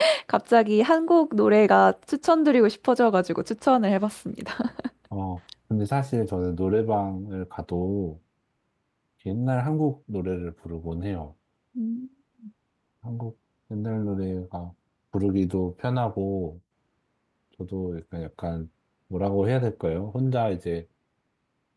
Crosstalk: none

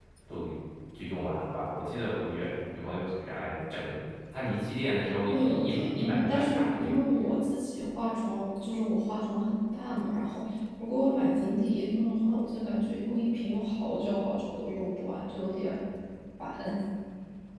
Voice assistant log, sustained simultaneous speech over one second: present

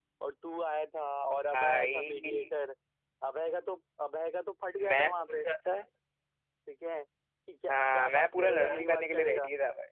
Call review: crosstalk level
present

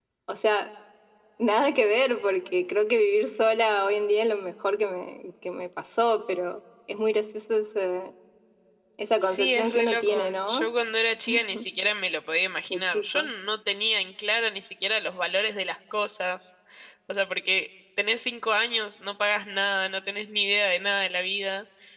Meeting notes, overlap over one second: present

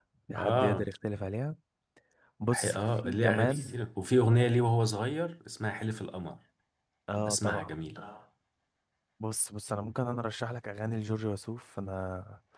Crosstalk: present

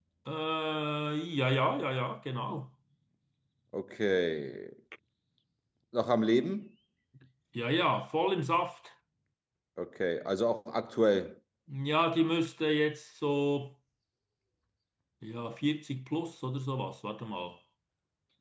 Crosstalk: none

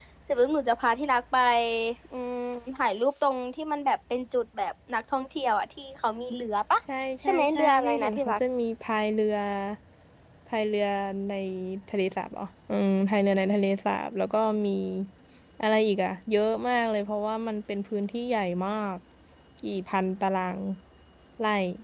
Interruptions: present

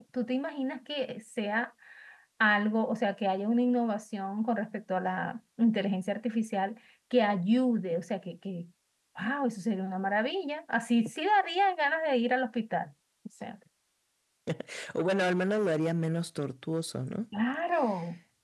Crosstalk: none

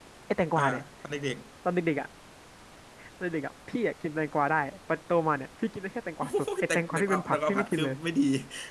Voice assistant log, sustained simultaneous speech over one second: present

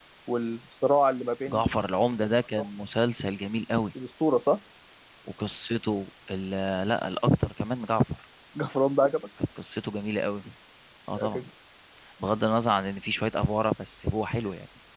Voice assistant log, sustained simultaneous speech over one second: none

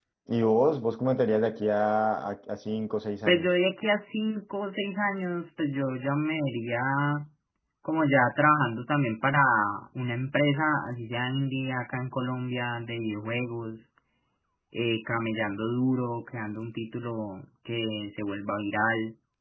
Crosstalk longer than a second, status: none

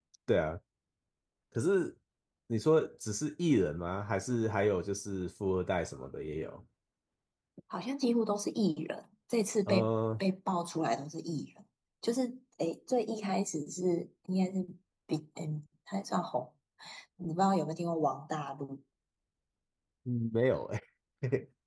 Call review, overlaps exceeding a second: none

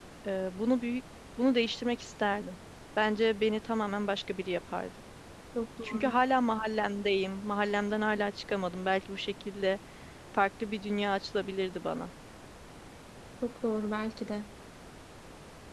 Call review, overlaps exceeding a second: none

